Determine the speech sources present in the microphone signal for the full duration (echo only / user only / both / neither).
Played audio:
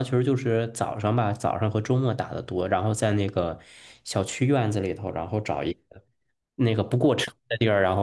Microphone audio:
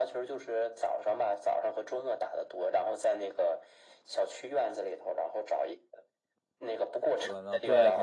both